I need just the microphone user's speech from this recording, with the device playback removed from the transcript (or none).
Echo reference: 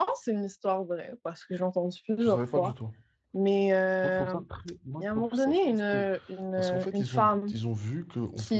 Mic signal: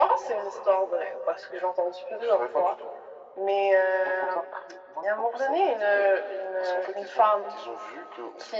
none